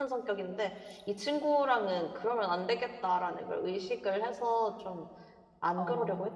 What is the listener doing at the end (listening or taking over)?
taking over